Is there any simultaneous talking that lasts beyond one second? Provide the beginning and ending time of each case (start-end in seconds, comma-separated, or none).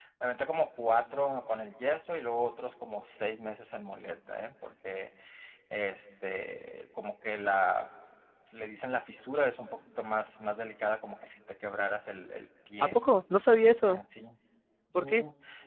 none